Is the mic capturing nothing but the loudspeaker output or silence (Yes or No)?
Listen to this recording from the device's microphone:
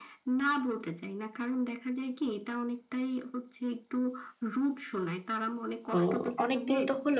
No